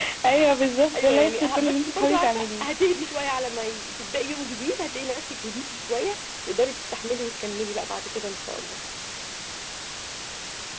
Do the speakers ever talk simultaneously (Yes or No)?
Yes